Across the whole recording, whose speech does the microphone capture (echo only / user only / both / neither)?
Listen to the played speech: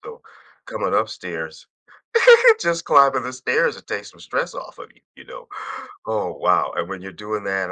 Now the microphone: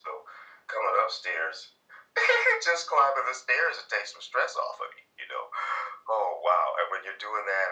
echo only